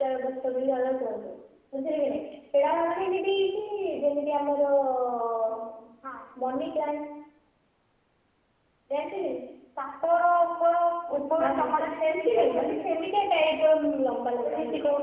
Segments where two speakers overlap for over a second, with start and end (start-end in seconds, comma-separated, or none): 11.4-12.8